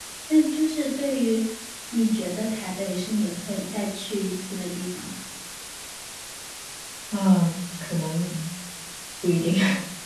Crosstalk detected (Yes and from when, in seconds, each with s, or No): No